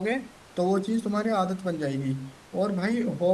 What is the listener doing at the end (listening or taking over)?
listening